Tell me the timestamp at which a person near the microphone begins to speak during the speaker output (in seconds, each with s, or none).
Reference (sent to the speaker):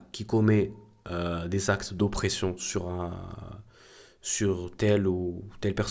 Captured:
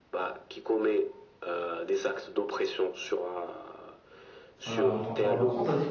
4.7 s